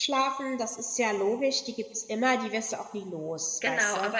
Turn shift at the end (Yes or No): Yes